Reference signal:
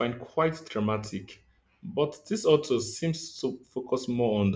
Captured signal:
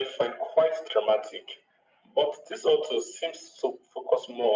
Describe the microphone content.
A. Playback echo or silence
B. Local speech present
A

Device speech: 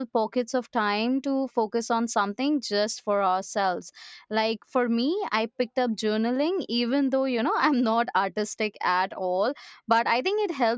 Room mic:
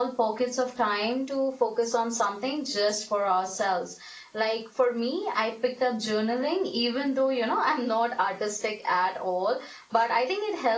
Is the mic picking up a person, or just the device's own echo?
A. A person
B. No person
B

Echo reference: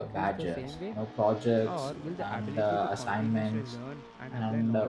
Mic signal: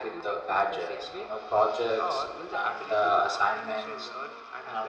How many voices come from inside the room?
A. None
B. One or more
A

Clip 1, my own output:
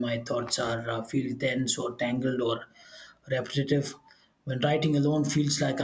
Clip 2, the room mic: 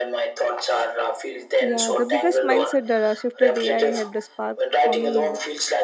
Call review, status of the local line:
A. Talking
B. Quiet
A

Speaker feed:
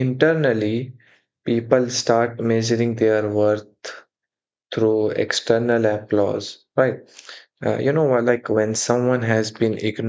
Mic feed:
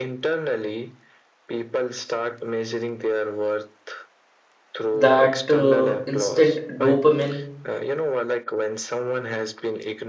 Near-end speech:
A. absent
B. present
B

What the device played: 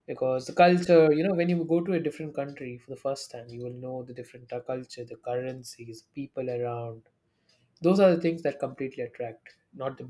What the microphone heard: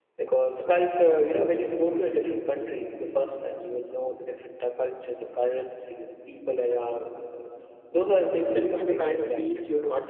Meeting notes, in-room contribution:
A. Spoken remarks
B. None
A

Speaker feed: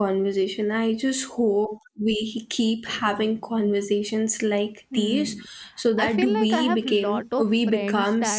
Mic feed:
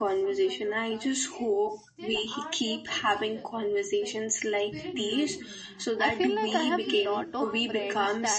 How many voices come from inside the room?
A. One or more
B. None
A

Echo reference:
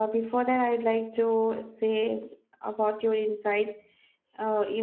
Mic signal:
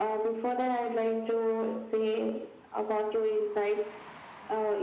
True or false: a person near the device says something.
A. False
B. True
A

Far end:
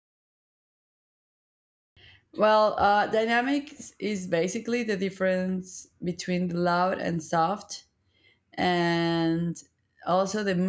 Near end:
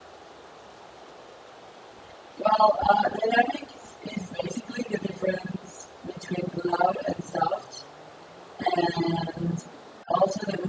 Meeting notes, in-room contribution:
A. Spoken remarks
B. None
B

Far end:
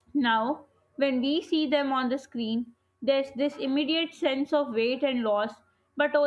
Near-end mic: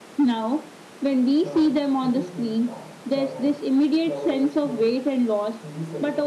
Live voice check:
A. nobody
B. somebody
B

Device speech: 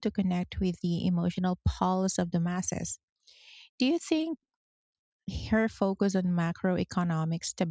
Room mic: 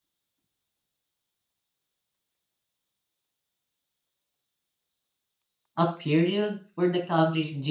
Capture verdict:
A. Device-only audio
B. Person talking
B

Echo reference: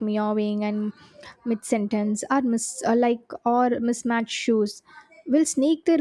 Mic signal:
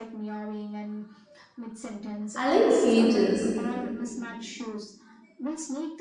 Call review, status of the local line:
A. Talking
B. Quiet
A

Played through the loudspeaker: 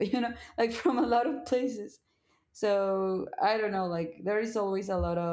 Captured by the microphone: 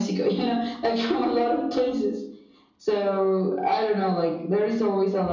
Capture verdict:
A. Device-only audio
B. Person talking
A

